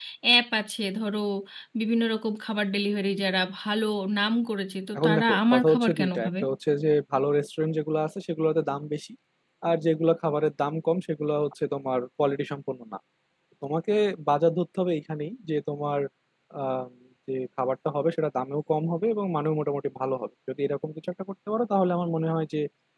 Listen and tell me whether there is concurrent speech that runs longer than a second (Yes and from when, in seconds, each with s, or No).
Yes, from 5.0 s